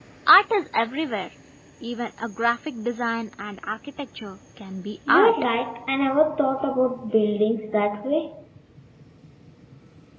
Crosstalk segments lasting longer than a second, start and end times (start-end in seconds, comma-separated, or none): none